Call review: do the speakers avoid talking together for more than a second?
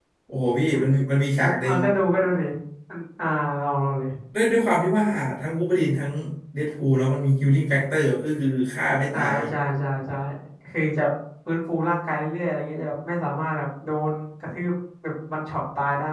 Yes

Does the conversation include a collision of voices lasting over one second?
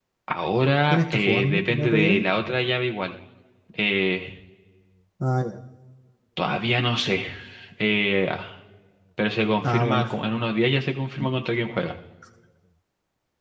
Yes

